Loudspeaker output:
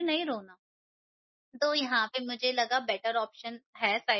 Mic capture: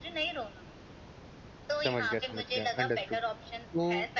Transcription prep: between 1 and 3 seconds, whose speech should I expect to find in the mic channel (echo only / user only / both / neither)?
both